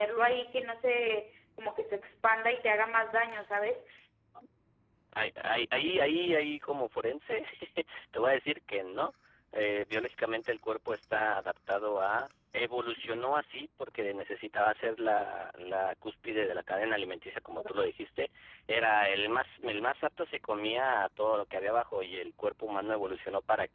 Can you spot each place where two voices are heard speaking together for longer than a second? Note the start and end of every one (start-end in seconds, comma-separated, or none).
none